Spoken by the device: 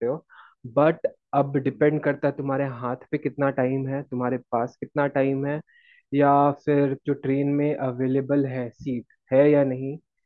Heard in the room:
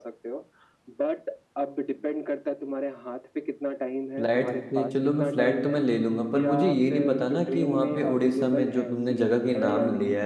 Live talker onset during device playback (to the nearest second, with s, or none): 4 s